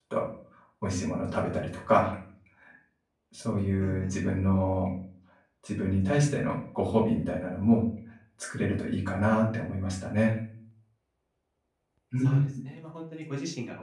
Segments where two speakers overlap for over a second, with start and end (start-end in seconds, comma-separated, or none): none